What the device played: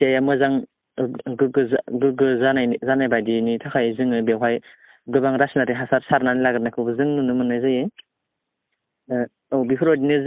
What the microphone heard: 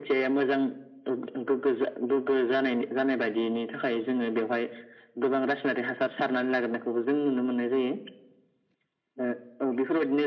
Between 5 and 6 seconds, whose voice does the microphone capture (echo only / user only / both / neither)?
echo only